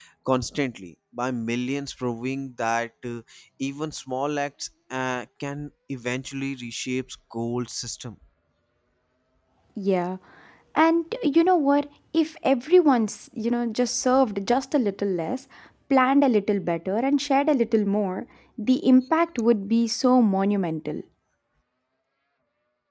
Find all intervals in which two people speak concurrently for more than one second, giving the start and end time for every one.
none

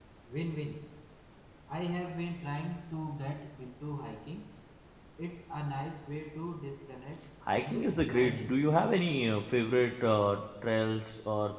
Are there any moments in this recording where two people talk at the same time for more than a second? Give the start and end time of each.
7.5-8.8

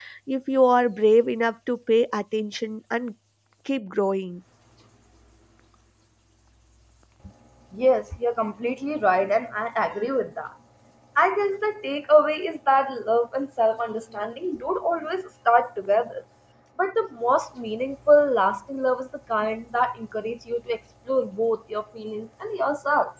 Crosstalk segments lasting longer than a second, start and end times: none

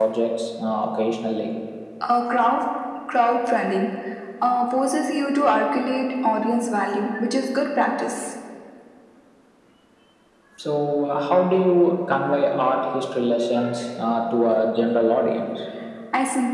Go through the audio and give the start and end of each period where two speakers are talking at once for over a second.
none

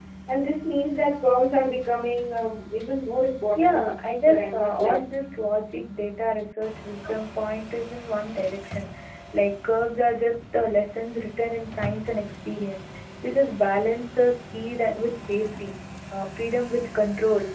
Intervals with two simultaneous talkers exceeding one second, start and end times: 3.5-5.2

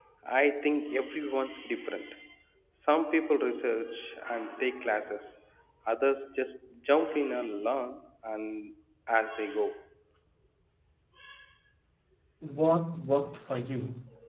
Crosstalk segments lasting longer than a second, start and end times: none

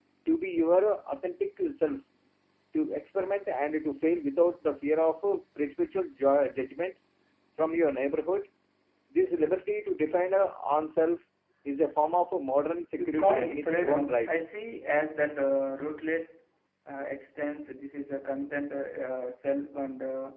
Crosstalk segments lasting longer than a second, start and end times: 13.0-14.3

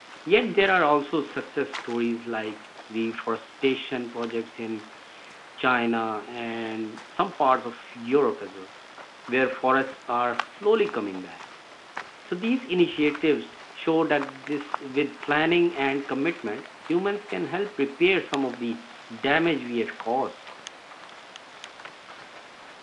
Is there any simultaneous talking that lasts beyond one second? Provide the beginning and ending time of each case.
none

